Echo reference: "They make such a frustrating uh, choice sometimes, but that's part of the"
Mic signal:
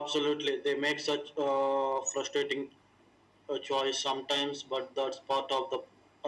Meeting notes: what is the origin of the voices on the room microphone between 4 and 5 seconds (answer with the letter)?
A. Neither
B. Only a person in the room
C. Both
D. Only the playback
D